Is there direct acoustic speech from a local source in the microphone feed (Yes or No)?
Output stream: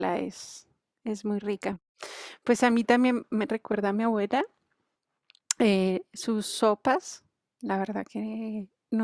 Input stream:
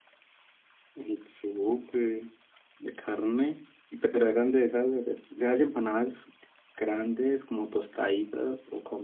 Yes